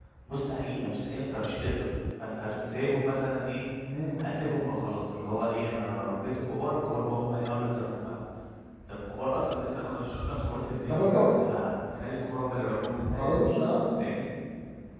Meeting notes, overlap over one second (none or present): none